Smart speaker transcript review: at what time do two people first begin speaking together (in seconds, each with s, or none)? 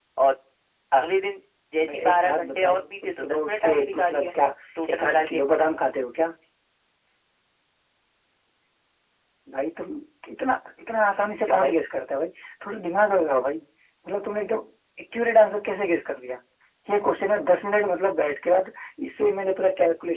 1.9 s